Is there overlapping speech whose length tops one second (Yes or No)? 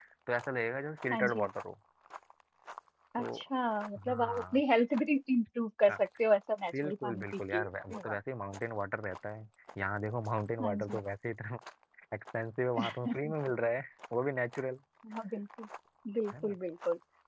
Yes